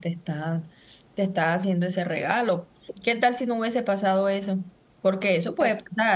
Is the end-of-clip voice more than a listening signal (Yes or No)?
No